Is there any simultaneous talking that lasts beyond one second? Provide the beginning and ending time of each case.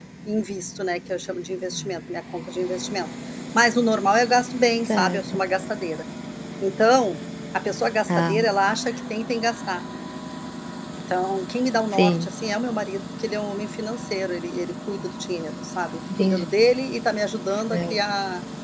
none

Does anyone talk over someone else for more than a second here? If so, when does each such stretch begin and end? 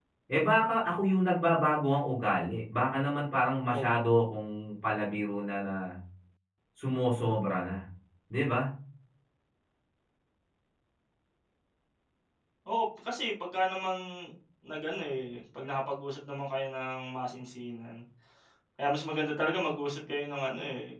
none

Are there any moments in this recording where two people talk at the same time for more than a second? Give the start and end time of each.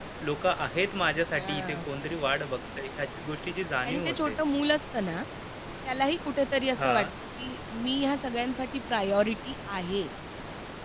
none

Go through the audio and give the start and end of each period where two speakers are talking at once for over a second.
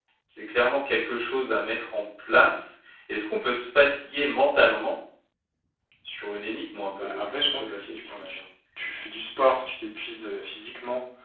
6.9-8.4

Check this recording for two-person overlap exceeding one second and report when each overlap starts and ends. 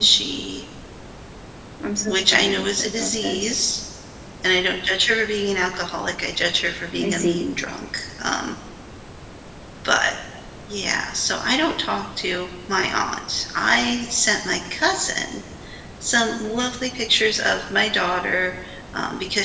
2.1-3.5

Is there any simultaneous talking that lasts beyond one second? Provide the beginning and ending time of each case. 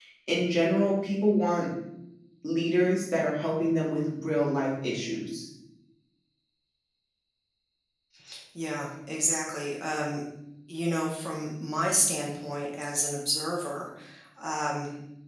none

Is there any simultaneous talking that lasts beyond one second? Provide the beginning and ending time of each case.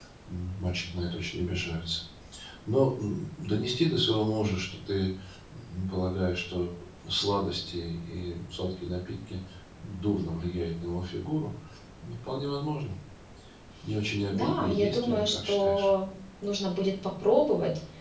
14.3-15.9

